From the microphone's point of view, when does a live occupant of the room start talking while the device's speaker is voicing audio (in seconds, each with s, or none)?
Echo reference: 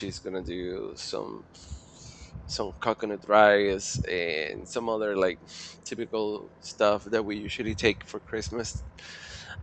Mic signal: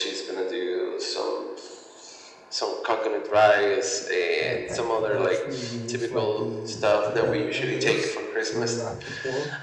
4.4 s